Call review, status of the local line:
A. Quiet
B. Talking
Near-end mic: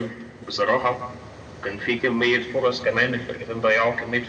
A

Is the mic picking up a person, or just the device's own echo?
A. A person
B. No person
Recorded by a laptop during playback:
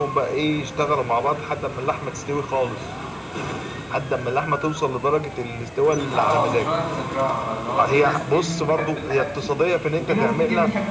A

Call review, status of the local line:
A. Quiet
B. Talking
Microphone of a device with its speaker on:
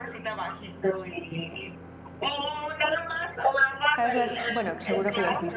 B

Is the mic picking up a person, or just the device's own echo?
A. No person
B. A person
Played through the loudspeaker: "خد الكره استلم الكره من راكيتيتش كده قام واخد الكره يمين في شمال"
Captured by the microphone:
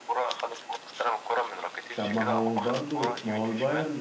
B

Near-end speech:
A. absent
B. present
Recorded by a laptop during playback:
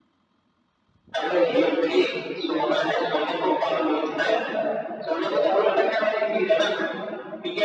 A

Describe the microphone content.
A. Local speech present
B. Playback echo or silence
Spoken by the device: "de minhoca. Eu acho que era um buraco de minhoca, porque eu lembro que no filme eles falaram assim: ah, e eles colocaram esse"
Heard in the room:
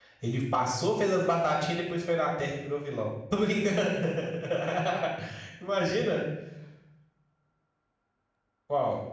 A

